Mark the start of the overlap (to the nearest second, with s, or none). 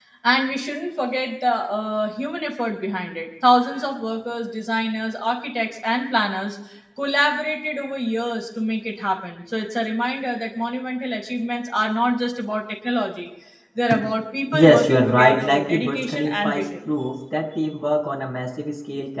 15 s